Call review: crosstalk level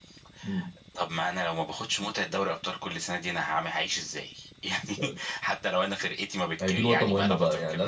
present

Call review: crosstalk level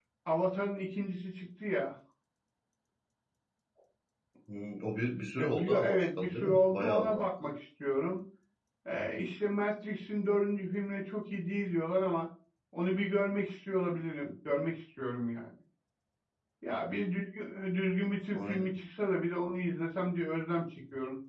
present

